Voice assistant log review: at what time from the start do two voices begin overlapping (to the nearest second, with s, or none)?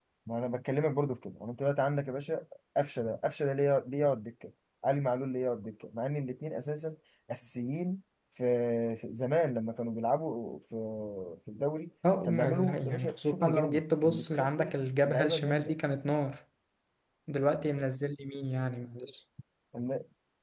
12 s